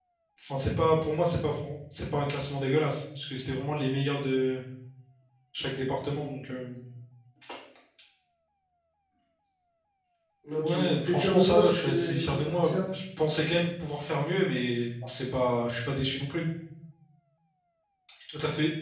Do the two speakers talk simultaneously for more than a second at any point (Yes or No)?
Yes